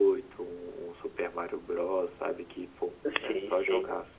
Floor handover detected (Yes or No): Yes